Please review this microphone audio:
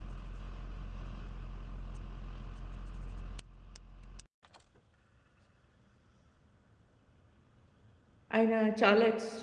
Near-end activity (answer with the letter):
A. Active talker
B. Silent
A